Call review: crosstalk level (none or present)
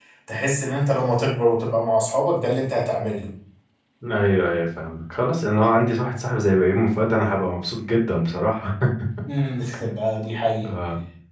none